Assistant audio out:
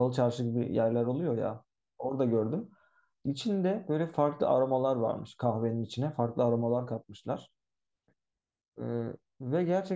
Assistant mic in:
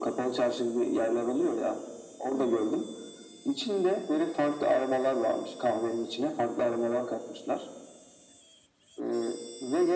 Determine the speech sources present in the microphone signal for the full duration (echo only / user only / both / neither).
both